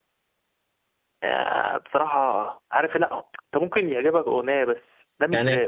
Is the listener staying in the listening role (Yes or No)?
No